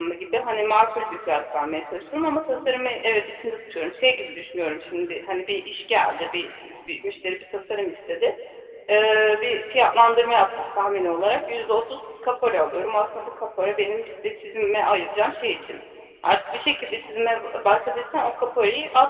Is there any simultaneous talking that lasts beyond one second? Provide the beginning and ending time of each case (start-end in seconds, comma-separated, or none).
none